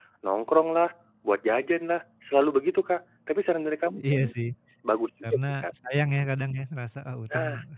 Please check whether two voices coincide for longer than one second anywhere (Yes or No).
No